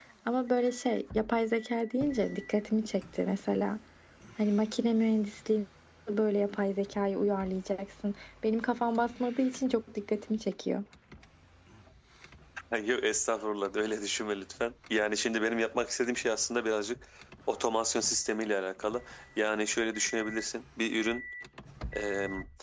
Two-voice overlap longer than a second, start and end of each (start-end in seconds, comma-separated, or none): none